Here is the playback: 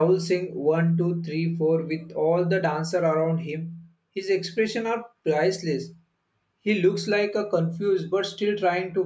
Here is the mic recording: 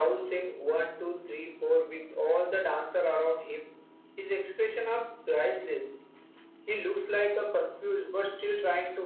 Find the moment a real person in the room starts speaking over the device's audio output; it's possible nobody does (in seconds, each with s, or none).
none